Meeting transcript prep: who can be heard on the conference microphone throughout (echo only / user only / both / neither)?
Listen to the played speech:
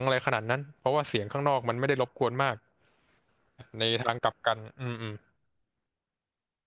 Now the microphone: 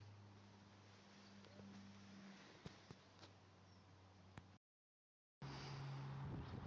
neither